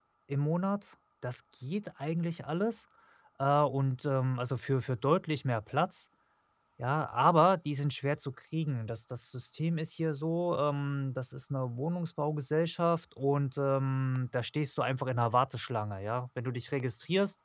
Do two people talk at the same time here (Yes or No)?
No